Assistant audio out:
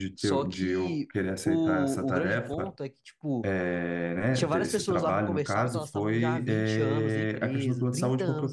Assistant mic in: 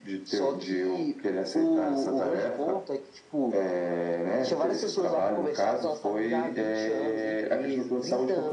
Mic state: echo only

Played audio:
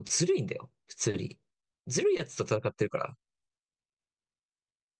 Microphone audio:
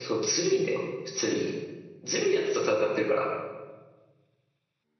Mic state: echo only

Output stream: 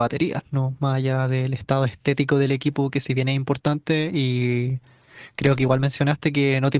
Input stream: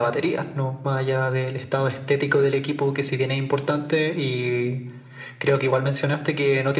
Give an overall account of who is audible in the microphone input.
echo only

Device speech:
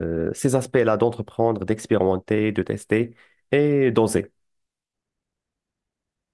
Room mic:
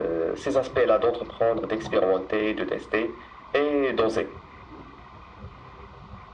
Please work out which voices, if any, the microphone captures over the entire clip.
echo only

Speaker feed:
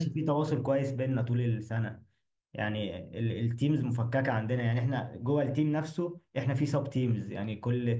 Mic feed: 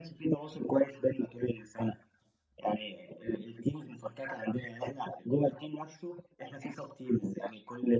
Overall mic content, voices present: echo only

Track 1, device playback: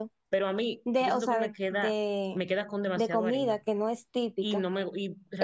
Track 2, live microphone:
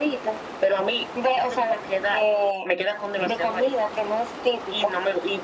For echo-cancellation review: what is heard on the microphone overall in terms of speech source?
echo only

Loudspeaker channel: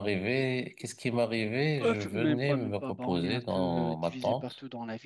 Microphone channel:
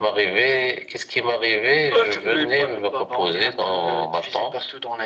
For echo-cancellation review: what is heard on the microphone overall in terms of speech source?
echo only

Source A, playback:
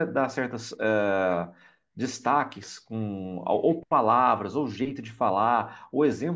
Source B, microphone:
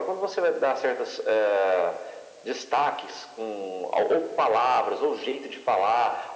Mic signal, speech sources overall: echo only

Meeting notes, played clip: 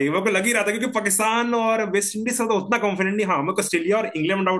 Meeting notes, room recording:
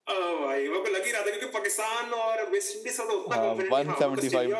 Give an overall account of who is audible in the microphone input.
both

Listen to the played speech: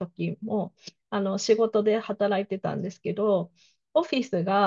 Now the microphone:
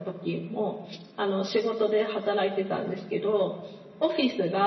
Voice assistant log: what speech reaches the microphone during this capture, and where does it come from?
echo only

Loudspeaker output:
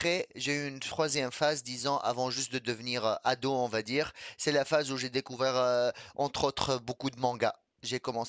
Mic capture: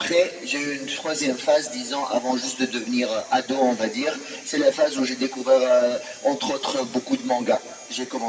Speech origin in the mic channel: echo only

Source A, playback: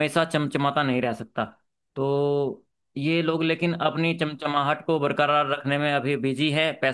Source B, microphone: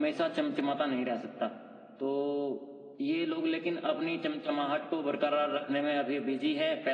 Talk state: echo only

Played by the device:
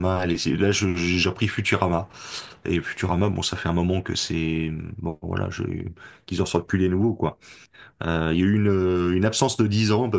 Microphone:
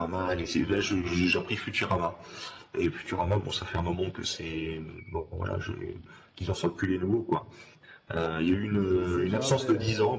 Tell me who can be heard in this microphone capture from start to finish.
both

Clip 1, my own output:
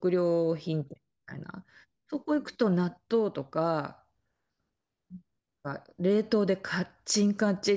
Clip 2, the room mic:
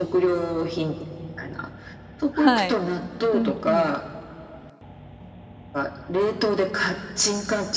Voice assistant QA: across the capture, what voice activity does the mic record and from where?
both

